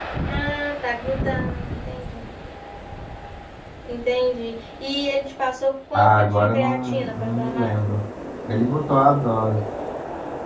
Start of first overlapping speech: 6 s

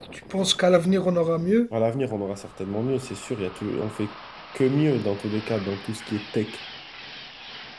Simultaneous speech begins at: none

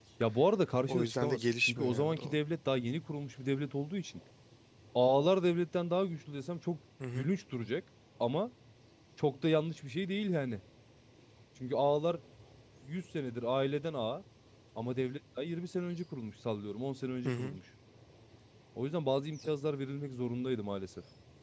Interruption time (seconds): 1 s

